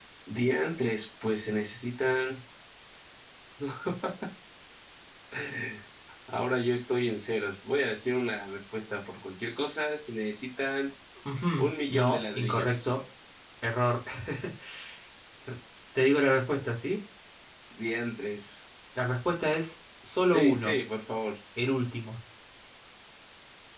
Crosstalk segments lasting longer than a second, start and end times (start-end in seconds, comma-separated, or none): 11.6-12.9